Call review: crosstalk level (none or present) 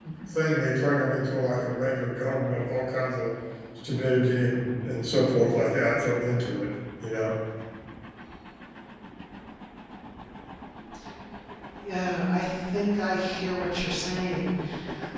none